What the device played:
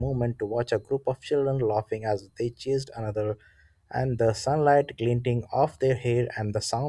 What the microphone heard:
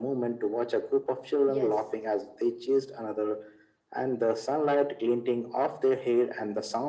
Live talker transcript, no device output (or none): Yes.